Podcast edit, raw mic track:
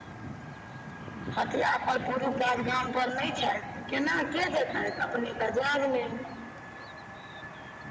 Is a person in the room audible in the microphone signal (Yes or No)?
No